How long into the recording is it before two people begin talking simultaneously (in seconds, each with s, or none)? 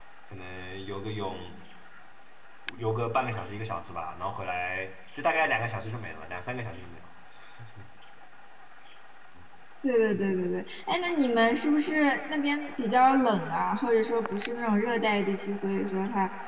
none